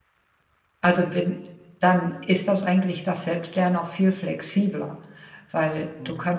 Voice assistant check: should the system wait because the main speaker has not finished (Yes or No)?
Yes